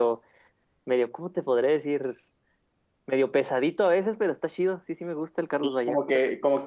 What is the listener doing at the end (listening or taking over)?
taking over